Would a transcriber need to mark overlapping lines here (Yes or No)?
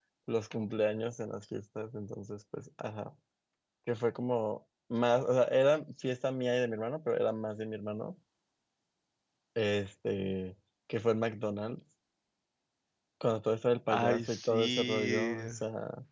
Yes